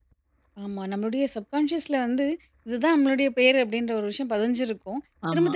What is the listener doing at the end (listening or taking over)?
listening